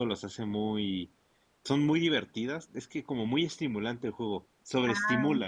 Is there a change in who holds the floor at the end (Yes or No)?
Yes